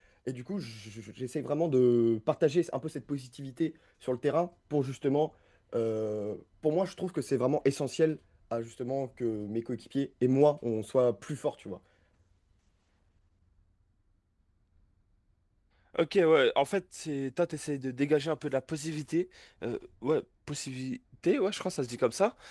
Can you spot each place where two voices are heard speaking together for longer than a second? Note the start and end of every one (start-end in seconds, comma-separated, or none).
none